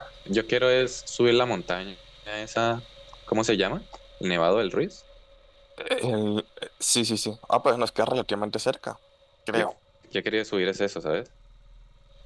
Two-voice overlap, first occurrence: none

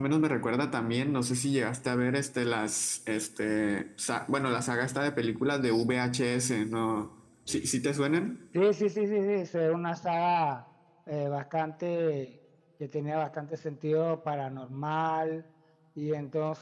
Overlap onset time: none

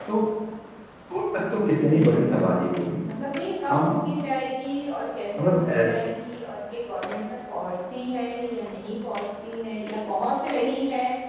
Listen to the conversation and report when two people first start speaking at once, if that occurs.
1.8 s

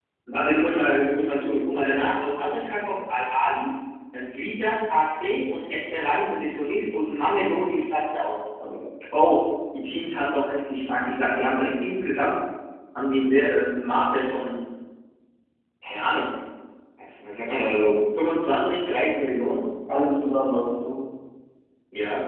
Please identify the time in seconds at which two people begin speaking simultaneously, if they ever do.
none

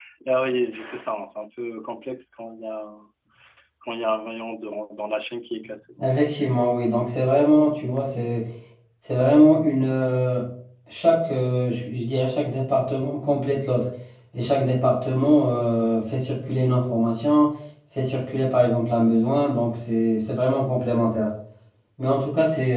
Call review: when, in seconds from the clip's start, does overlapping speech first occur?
none

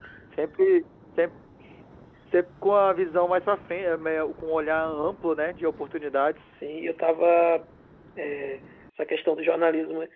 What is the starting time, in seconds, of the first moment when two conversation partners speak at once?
none

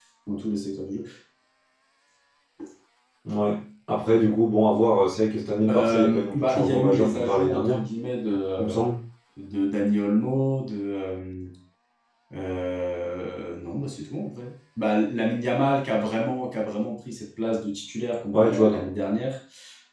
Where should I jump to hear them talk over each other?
5.7 s

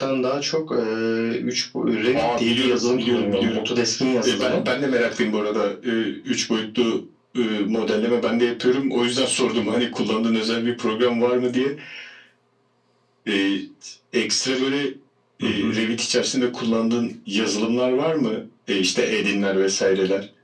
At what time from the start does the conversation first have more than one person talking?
2.1 s

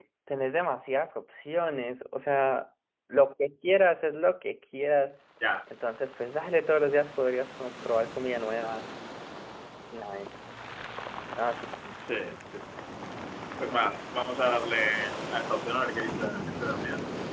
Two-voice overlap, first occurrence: none

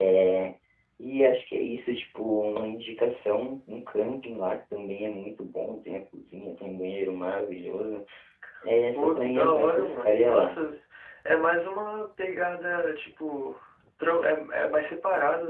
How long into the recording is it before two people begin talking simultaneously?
8.9 s

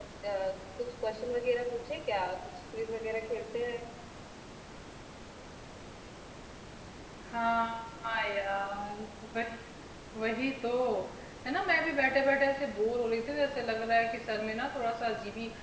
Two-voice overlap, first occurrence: none

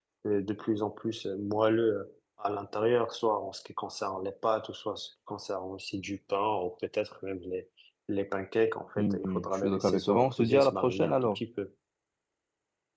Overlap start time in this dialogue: 9.0 s

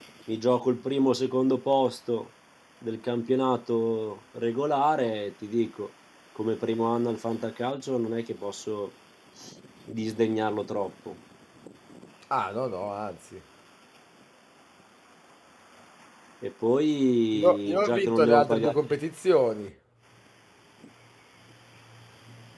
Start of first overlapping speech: 17.3 s

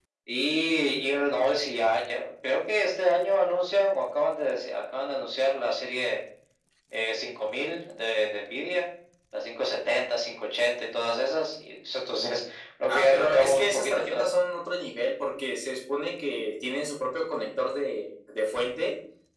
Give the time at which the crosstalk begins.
12.9 s

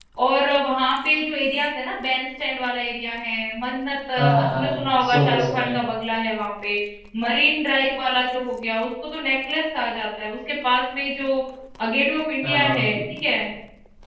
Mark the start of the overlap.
4.2 s

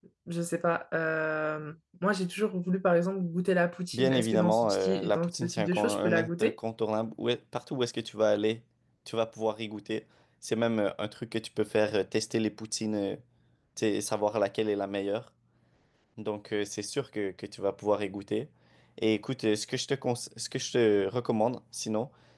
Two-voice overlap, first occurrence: 3.9 s

